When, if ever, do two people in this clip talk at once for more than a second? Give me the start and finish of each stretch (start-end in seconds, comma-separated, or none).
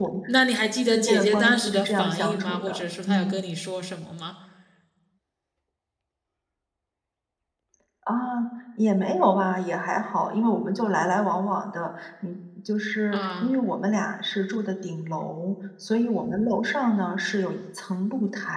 0.9-3.4